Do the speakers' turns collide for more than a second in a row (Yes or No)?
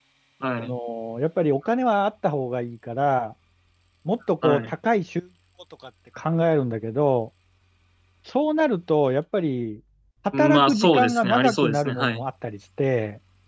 Yes